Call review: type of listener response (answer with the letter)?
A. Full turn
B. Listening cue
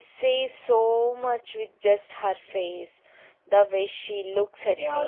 A